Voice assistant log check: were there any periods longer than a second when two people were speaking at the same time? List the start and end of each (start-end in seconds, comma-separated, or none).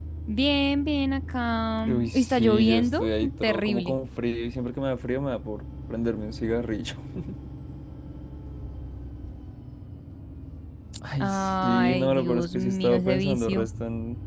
1.8-4.0, 11.2-13.7